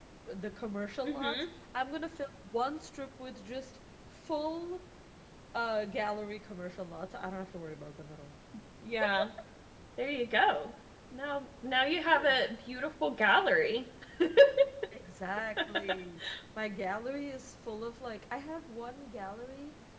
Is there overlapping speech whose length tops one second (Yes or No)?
No